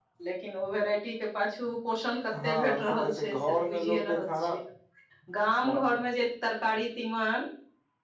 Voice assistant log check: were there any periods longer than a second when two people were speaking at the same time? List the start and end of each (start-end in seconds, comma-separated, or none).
2.4-4.5